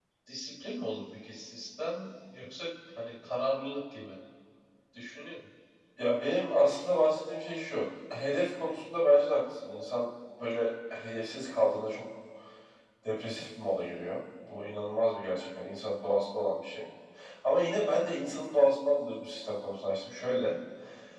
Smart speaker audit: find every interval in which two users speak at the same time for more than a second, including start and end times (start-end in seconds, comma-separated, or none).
none